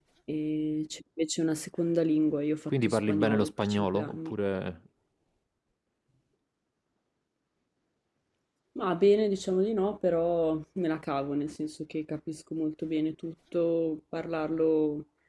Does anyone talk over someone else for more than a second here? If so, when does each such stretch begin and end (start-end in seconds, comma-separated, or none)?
2.7-4.3